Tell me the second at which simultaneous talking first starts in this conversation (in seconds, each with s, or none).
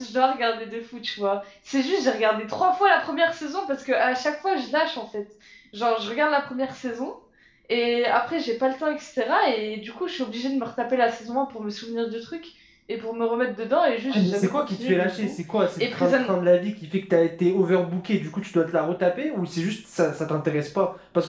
14.1 s